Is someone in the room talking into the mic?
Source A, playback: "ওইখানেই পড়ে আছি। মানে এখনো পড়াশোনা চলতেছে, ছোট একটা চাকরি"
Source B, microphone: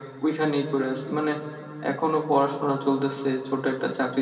No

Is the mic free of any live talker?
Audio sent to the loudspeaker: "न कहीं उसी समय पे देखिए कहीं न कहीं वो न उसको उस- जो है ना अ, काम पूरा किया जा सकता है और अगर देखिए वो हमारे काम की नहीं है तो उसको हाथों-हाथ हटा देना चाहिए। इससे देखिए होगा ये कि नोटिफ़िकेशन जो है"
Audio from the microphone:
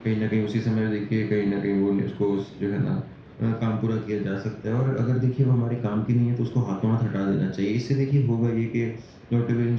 Yes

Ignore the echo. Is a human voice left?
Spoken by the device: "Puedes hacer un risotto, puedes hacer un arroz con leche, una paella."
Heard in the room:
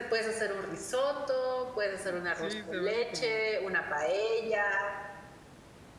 Yes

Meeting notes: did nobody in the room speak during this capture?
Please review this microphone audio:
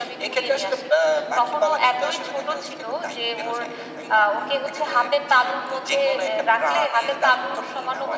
Yes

